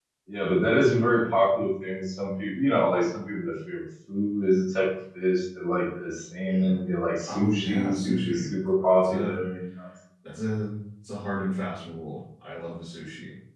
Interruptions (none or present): present